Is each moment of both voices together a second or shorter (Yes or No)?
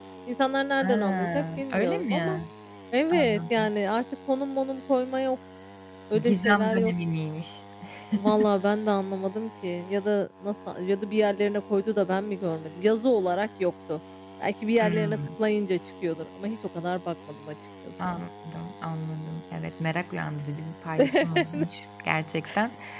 No